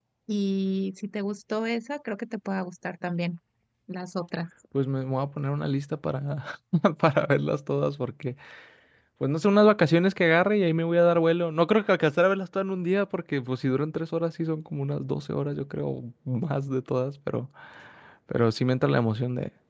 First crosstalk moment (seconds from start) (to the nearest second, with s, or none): none